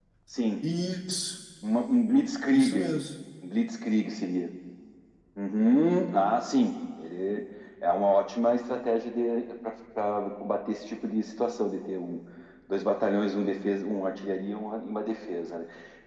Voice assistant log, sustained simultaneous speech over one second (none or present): none